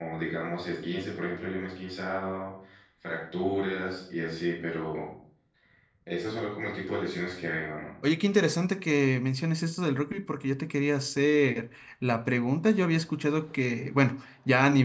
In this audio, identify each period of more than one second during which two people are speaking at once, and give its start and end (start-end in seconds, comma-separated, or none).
none